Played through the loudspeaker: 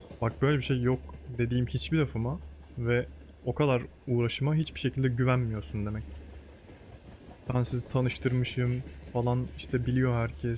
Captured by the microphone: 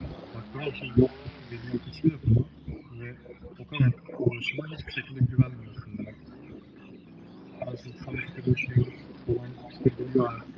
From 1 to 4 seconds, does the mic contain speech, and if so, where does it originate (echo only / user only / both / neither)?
echo only